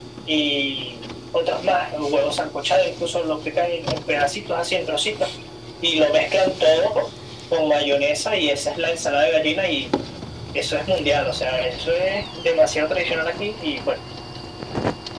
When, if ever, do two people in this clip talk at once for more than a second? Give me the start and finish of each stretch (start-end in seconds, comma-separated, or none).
none